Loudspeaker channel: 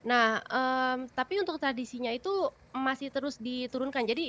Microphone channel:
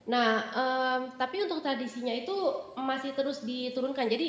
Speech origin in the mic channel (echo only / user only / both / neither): echo only